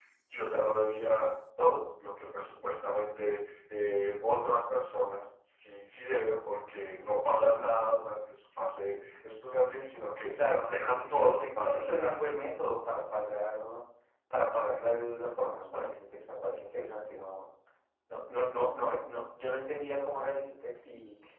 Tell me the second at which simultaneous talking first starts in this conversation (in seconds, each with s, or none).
10.4 s